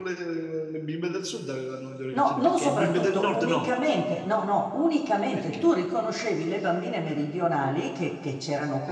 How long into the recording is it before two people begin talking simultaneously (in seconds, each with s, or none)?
2.1 s